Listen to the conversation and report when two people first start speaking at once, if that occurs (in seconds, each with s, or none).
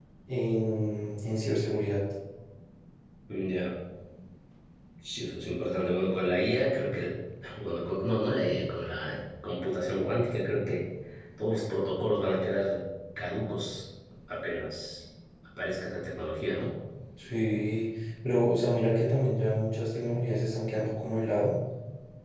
none